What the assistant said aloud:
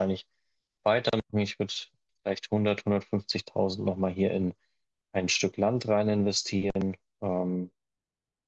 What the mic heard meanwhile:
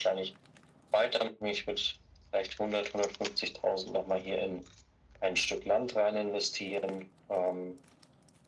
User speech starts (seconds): none

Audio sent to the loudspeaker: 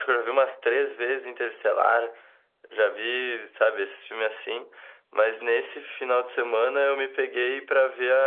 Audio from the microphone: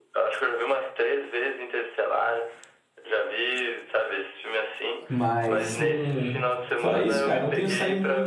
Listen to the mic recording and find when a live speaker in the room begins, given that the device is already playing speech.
5 s

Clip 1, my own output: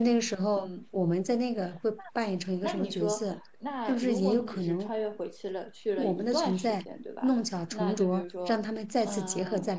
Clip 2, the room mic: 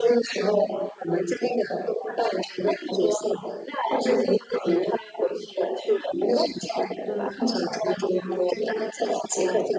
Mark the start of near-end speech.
7 s

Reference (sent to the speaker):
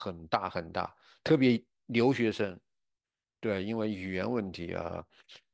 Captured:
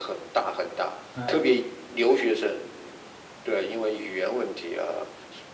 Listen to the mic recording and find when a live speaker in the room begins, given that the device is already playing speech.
1 s

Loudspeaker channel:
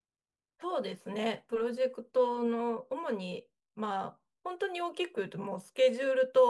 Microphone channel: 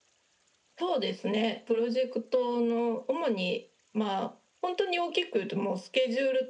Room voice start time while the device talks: none

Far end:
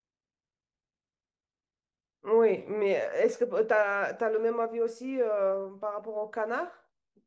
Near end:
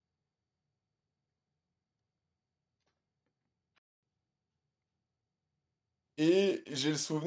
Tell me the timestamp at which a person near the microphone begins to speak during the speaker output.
6 s

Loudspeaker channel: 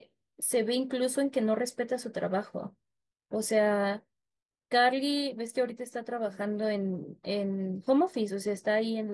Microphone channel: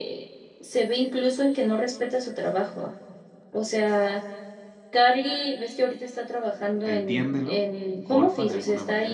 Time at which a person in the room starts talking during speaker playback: 7 s

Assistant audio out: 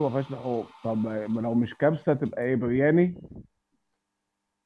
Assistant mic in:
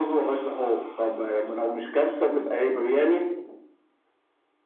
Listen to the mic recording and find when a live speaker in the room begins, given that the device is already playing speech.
none

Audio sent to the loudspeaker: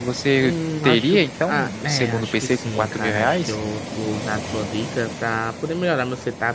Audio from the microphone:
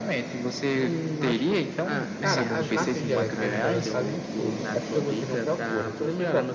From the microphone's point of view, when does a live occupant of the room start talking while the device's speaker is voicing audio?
2 s

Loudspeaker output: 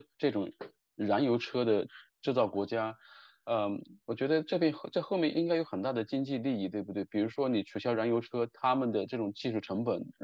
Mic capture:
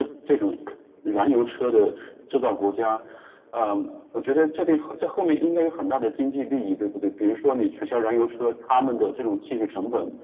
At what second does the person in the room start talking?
none

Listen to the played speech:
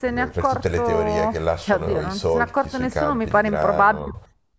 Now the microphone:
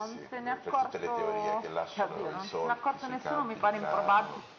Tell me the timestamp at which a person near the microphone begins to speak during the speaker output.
none

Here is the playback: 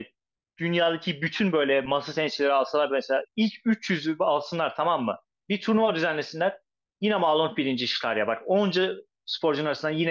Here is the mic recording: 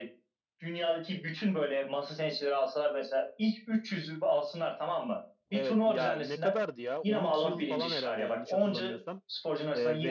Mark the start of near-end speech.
5 s

